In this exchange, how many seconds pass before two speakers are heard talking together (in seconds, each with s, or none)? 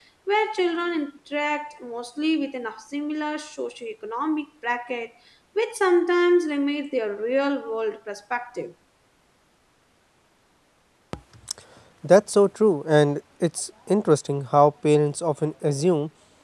none